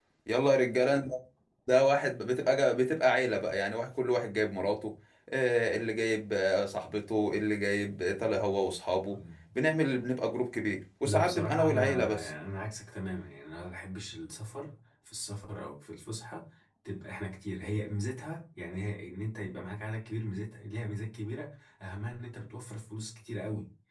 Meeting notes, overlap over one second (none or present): present